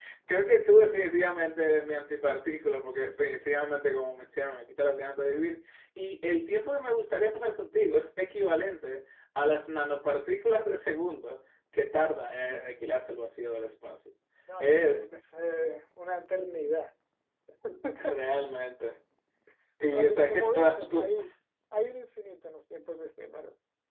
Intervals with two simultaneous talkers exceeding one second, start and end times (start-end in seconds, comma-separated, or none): 19.9-21.1